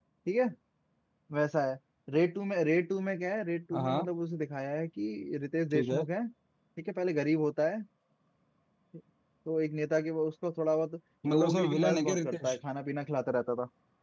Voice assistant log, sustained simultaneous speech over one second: present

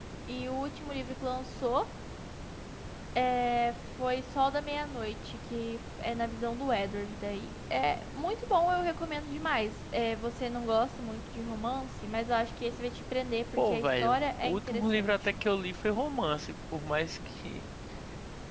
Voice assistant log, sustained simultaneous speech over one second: present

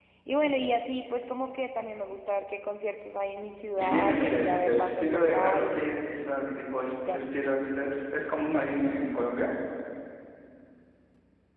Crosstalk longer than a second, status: present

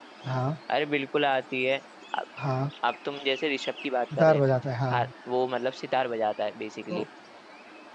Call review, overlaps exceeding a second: none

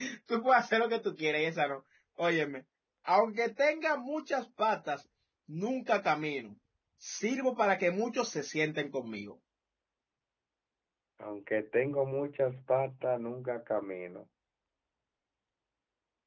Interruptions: none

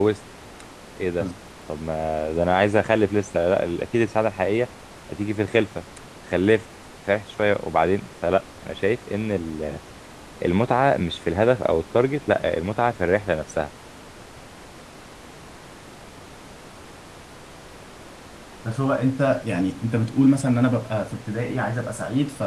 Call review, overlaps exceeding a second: none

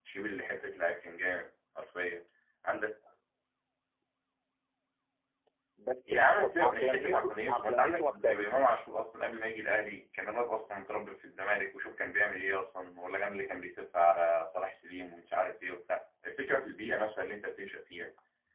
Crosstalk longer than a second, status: present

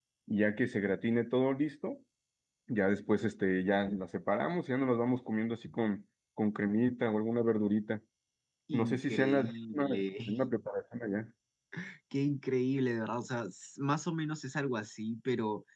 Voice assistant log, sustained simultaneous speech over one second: present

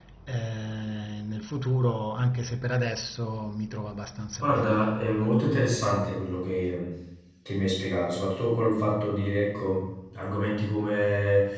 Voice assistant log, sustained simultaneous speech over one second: none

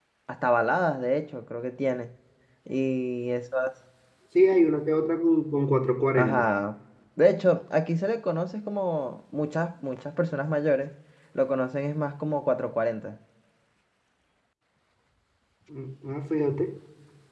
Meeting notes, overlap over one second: none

